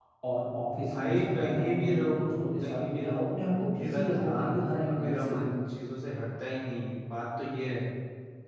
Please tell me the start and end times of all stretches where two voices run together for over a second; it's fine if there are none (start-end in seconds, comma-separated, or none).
0.9-3.4, 3.8-5.4